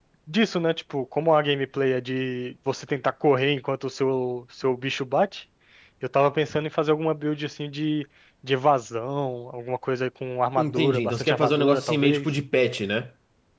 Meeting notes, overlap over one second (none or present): present